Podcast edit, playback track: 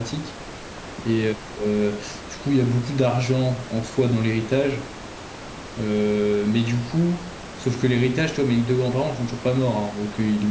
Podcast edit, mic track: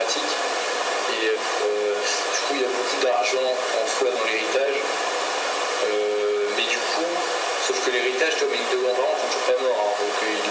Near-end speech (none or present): none